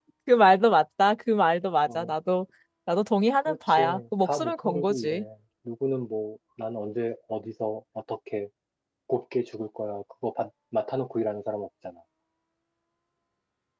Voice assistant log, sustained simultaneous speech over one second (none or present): present